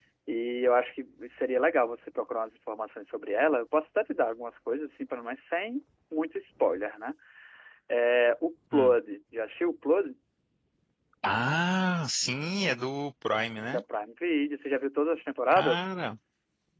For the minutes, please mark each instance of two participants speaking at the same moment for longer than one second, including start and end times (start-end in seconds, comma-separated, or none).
none